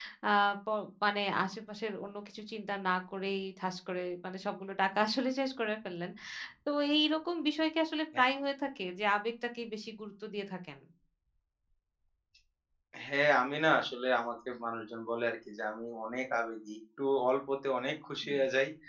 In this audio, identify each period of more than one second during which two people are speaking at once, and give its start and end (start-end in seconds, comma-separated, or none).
none